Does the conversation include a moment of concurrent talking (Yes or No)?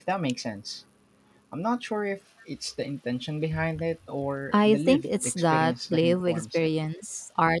Yes